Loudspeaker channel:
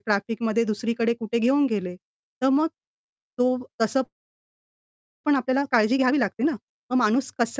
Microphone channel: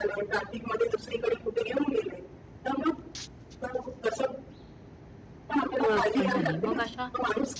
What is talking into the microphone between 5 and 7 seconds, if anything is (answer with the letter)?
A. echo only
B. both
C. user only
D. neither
B